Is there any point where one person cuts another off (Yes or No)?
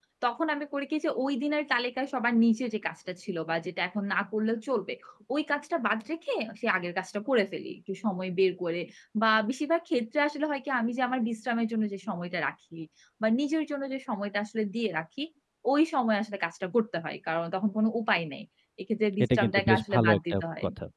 Yes